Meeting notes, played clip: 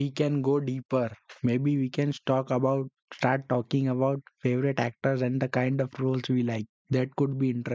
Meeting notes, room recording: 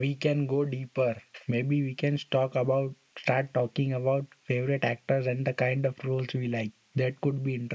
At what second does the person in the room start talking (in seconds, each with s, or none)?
none